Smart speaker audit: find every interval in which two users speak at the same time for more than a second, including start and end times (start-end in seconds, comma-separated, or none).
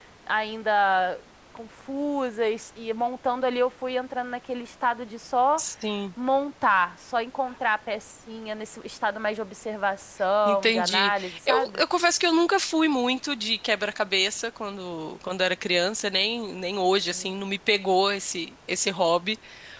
10.5-11.8